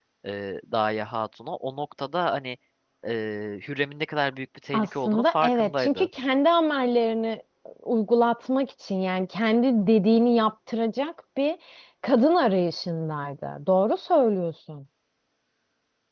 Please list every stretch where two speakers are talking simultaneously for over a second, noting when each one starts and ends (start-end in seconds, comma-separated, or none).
4.7-6.1